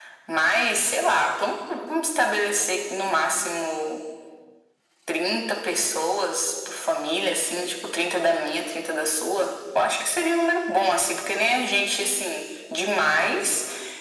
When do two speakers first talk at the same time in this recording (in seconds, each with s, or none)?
none